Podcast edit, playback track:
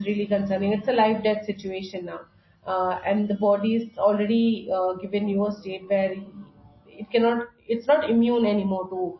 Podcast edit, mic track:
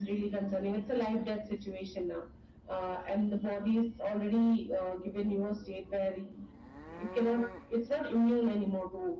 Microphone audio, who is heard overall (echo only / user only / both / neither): echo only